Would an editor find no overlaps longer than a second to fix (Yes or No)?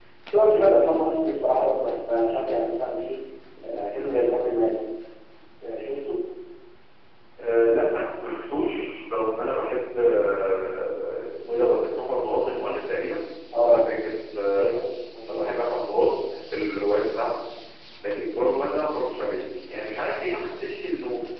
Yes